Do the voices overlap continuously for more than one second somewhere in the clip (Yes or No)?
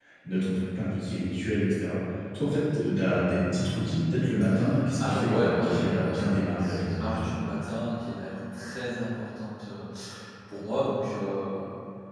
Yes